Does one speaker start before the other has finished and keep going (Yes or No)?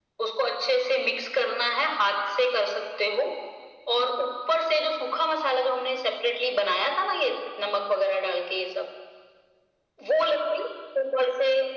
No